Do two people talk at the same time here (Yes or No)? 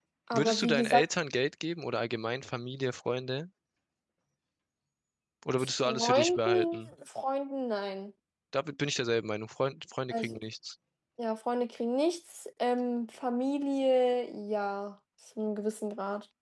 Yes